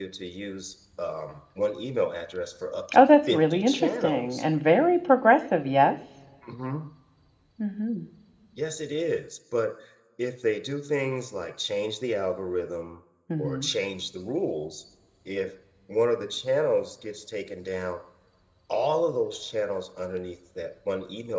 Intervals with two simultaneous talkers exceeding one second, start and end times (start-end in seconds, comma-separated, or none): 2.9-4.4